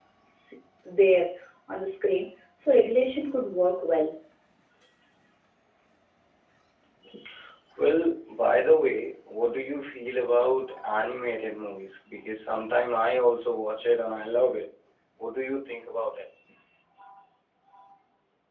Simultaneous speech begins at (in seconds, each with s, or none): none